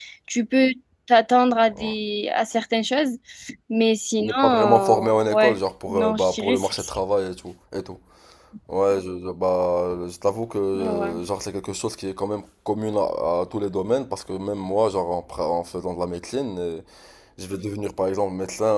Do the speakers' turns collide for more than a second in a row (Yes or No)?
Yes